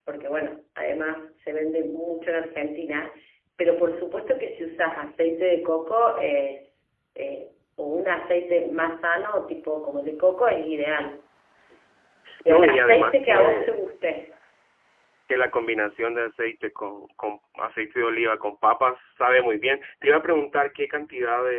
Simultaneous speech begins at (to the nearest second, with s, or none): 12 s